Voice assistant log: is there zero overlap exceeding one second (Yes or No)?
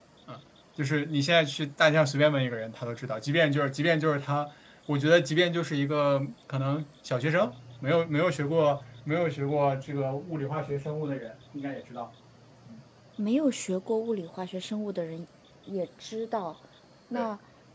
Yes